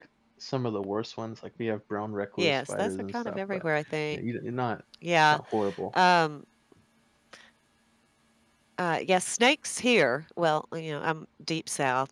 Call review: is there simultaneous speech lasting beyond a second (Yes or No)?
Yes